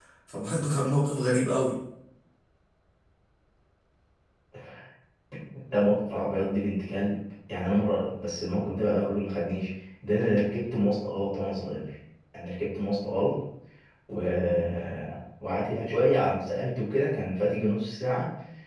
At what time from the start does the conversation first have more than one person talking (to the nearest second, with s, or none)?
none